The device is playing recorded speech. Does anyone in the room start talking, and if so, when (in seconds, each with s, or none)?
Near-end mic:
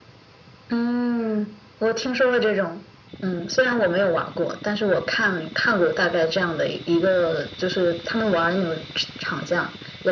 none